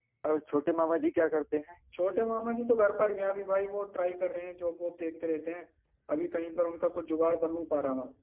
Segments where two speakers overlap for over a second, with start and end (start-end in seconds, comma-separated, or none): none